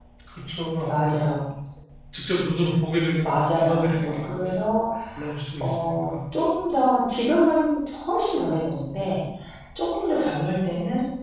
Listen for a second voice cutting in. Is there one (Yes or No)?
Yes